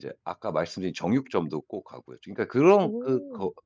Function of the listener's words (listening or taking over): listening